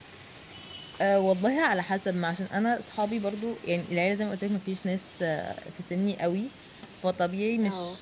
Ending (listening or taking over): listening